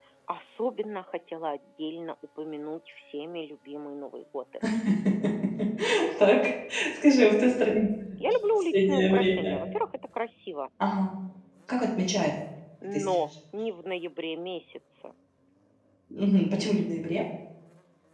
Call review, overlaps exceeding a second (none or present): present